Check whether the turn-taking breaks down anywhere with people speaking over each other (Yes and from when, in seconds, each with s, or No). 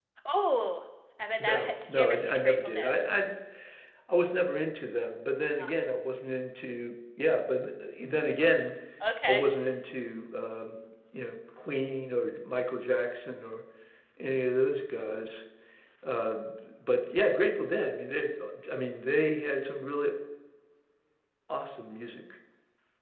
Yes, from 1.4 s